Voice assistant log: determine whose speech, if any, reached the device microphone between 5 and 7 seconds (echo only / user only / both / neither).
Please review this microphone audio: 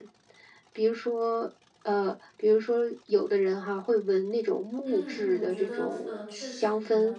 both